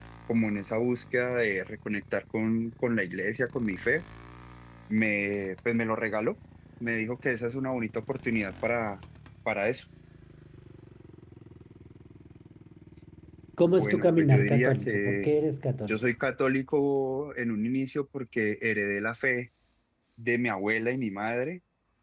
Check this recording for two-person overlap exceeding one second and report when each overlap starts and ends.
13.8-15.3

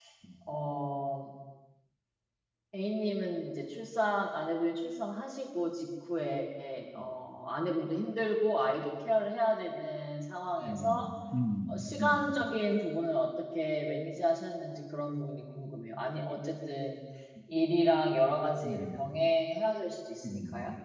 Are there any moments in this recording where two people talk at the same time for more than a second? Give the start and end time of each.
none

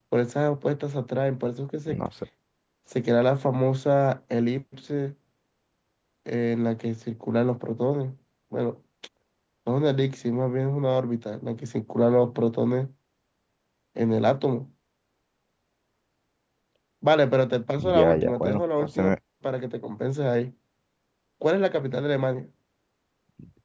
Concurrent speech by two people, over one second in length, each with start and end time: 17.8-19.1

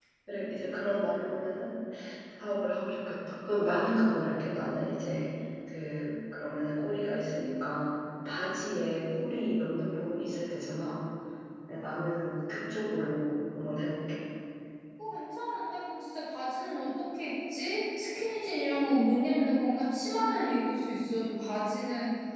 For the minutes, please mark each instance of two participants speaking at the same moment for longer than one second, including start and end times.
none

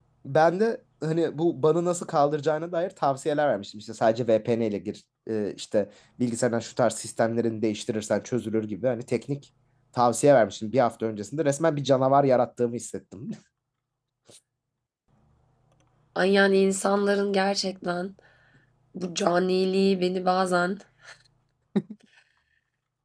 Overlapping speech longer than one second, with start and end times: none

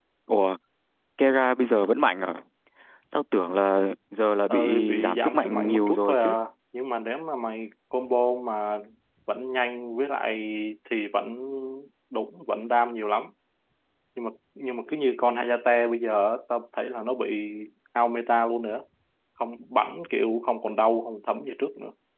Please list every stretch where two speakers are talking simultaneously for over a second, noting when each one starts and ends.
4.5-6.3

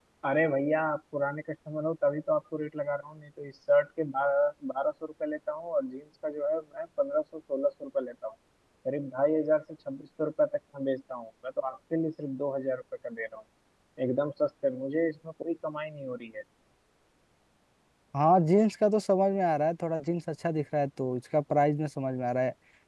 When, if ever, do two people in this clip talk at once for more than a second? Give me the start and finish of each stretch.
none

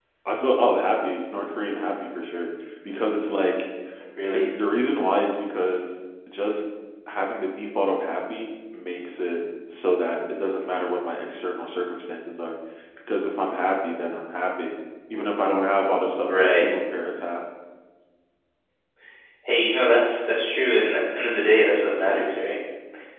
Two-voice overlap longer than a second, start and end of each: none

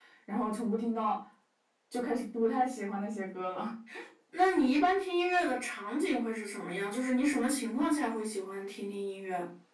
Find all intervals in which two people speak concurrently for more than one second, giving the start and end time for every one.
none

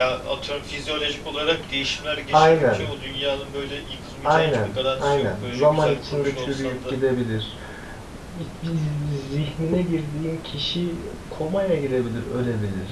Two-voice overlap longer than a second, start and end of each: 4.2-6.9

